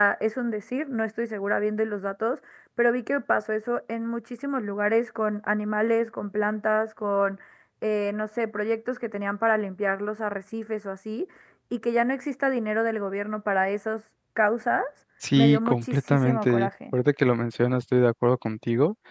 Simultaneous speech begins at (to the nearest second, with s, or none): 15 s